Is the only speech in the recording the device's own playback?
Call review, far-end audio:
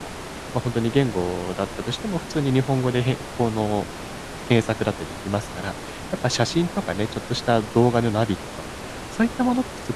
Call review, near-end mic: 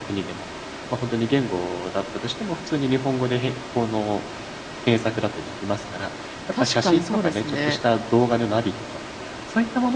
No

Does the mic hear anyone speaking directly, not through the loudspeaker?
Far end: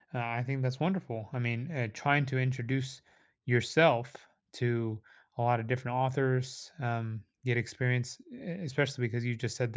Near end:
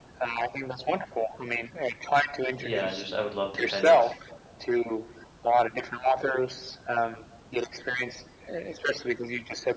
Yes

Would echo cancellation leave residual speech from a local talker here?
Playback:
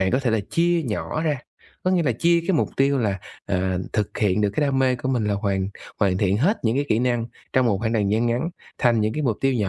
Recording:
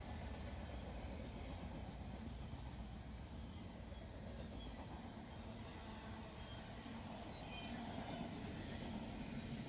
No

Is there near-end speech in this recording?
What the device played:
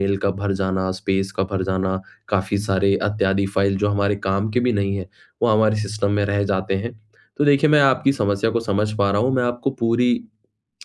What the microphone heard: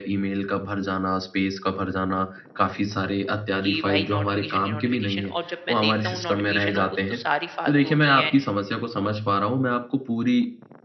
Yes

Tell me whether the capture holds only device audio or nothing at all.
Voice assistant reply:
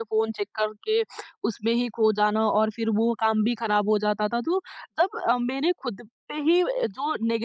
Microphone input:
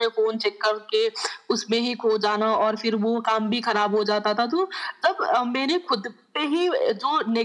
Yes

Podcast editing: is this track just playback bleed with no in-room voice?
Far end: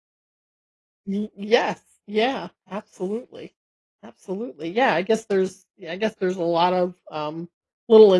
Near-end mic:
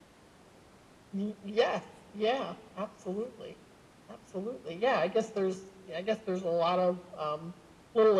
Yes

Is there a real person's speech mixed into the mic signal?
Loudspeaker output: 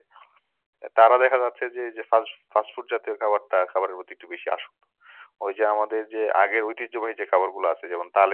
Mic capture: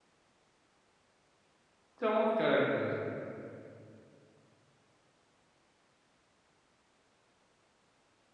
Yes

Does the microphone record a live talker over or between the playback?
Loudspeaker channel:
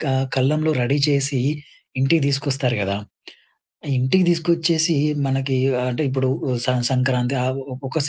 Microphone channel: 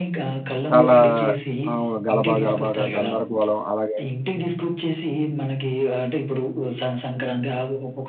Yes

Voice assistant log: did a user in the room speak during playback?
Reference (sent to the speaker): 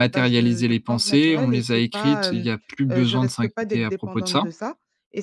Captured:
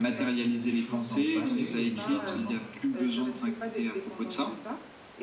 Yes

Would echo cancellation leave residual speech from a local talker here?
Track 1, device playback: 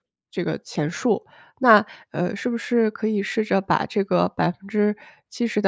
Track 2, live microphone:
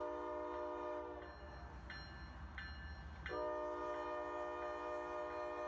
No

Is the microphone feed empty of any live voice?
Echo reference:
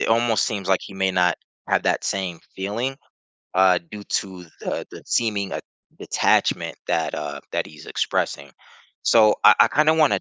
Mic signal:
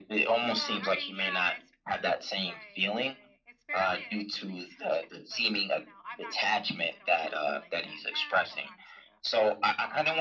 No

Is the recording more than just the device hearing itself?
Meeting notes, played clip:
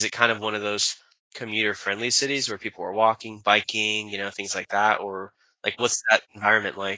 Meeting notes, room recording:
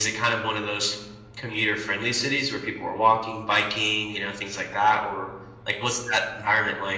No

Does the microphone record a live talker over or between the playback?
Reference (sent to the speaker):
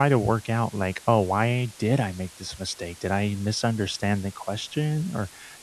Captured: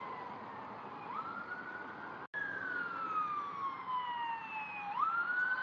No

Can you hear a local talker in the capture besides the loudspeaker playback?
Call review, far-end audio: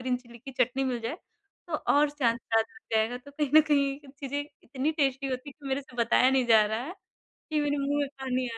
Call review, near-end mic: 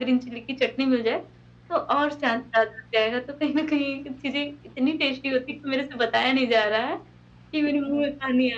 No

